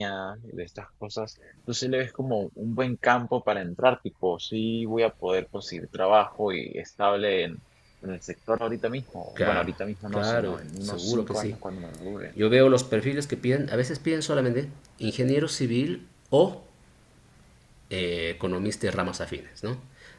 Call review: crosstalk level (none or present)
present